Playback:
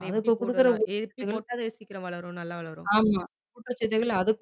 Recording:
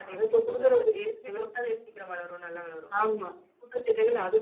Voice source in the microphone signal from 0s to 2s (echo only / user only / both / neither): echo only